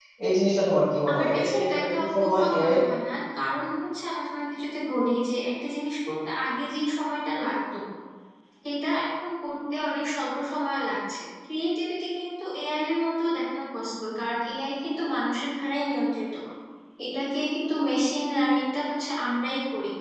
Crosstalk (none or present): present